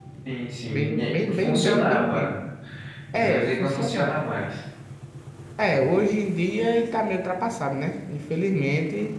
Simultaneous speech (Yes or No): Yes